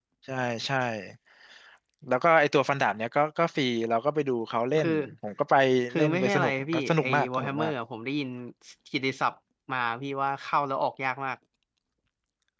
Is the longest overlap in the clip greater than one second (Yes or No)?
Yes